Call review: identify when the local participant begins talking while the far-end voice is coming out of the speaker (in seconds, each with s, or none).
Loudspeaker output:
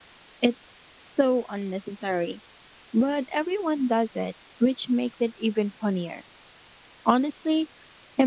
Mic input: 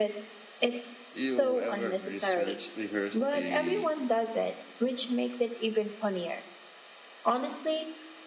1.1 s